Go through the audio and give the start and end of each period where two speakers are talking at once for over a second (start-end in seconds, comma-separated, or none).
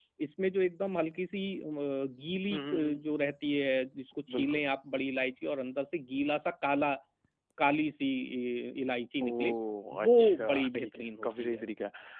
9.9-11.6